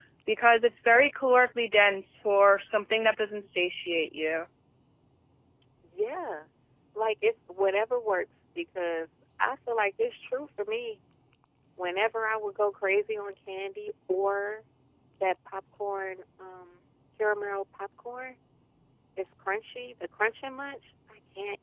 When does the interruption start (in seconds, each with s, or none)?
none